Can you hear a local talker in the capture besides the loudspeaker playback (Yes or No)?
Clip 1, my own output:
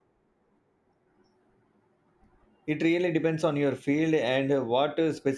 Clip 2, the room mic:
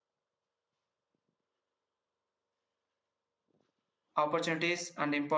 Yes